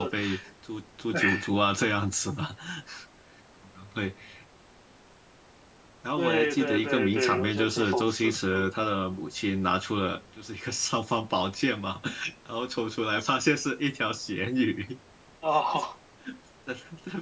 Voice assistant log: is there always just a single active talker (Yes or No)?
No